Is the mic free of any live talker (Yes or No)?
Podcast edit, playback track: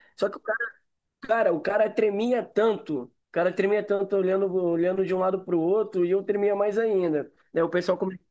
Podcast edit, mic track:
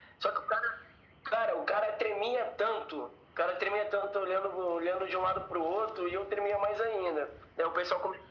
Yes